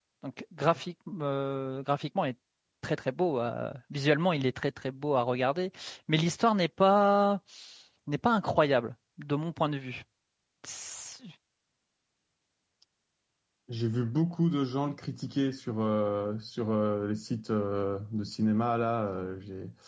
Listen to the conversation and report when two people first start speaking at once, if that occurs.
none

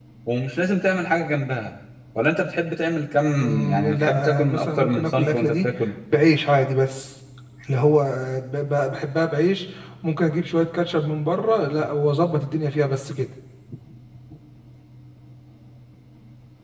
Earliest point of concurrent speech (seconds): 4 s

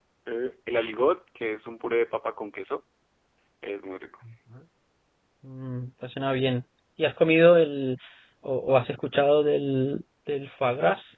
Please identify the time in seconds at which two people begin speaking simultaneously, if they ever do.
none

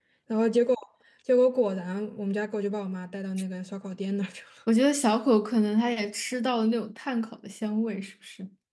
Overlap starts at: none

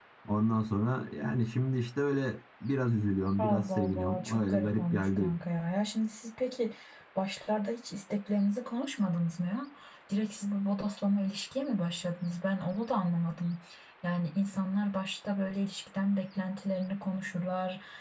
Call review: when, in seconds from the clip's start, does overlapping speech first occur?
3 s

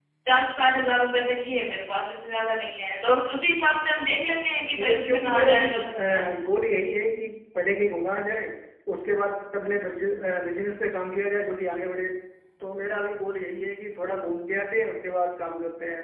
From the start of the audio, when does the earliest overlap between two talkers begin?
5 s

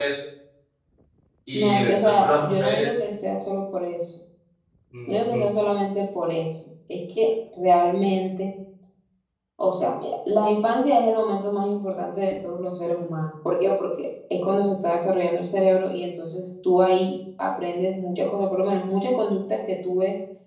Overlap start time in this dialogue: 2 s

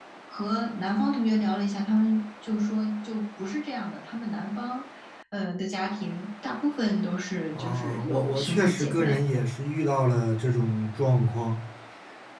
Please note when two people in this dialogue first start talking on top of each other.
8 s

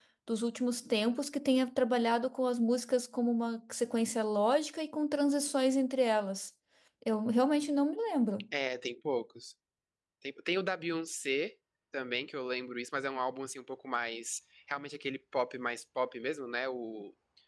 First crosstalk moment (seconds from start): none

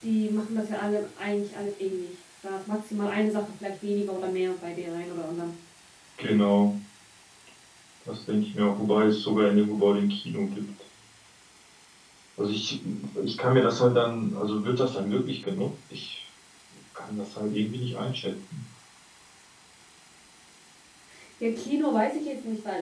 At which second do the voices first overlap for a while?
none

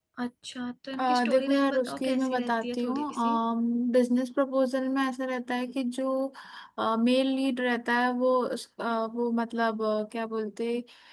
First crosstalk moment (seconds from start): 1 s

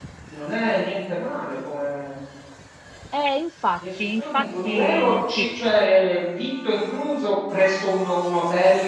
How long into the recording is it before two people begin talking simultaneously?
4 s

